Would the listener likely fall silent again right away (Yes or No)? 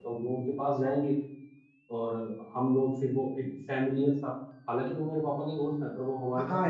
No